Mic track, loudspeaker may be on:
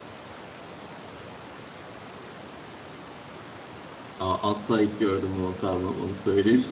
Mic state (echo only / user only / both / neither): user only